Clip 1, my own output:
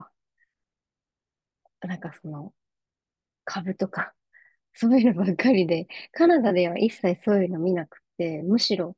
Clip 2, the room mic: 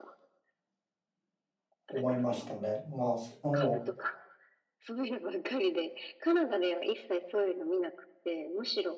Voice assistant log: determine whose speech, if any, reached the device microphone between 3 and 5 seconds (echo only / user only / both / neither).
both